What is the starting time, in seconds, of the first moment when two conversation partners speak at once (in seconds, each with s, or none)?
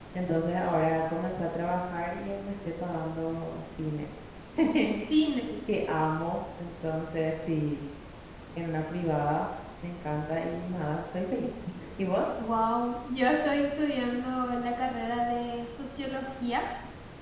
none